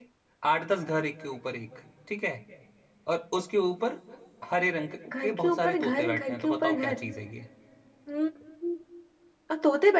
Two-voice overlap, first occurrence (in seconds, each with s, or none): 5.2 s